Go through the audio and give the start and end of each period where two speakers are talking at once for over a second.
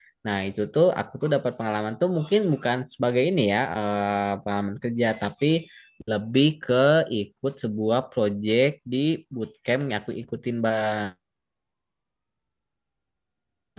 none

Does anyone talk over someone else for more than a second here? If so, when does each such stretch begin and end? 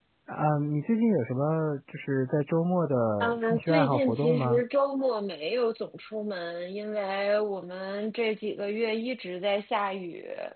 3.2-4.6

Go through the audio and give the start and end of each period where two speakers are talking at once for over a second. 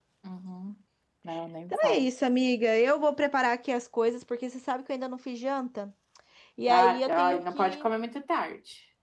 6.7-7.9

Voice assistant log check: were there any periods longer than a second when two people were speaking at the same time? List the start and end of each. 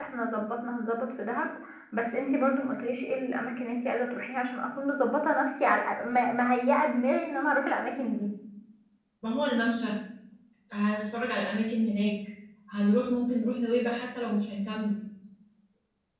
none

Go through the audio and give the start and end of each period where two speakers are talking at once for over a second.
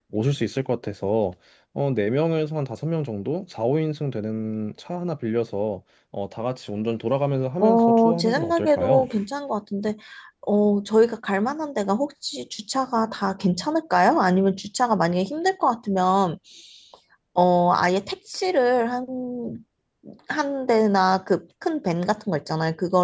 7.6-9.1

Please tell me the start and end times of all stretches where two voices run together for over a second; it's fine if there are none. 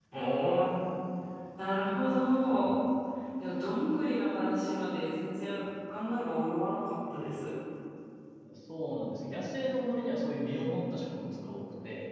none

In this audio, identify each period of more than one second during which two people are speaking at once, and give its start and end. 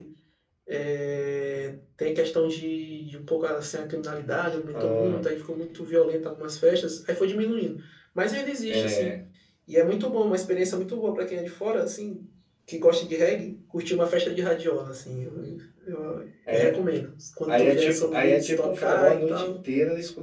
17.5-19.6

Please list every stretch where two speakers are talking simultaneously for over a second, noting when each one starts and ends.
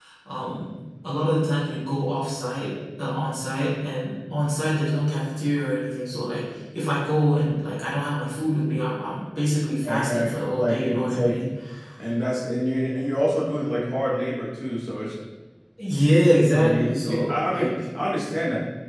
9.7-11.4, 16.6-17.8

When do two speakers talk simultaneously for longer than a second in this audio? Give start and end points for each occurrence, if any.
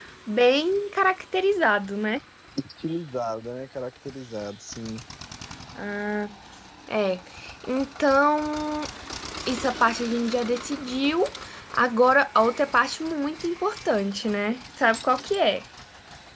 none

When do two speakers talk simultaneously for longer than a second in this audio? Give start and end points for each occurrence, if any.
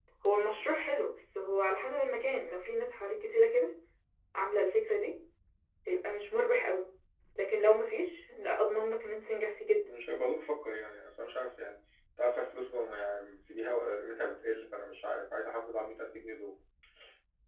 none

